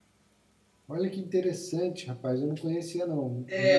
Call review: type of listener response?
taking over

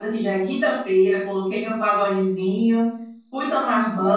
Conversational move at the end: listening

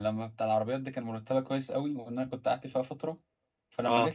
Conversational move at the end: listening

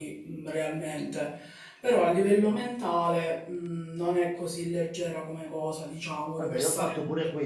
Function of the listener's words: taking over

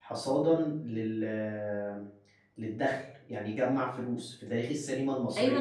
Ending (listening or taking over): taking over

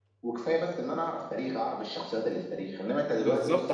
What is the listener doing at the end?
taking over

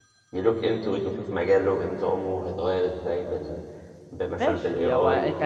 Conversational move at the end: taking over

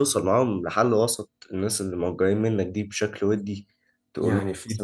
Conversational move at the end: taking over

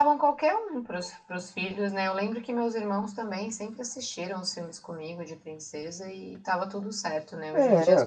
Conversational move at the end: listening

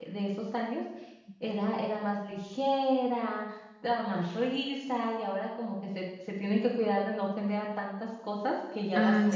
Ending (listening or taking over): taking over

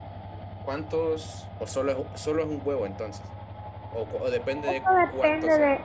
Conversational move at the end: taking over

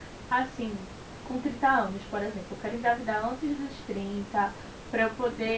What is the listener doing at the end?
listening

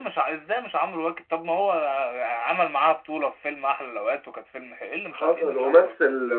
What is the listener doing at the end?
taking over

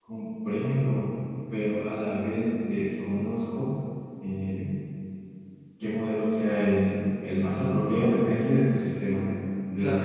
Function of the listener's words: listening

